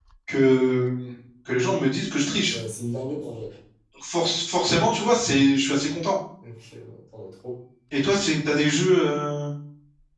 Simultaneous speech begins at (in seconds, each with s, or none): none